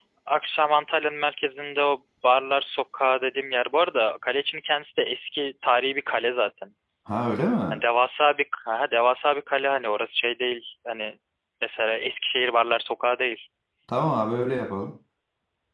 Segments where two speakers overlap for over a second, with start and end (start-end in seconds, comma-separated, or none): none